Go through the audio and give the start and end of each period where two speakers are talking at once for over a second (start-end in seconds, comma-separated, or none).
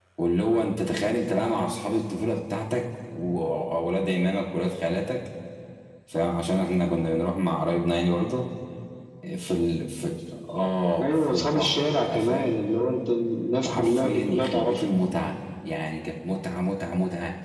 11.0-12.5, 13.6-14.8